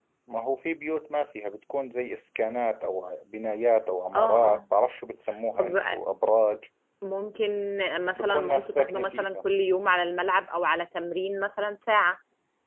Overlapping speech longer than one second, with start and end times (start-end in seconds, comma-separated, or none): 8.2-9.4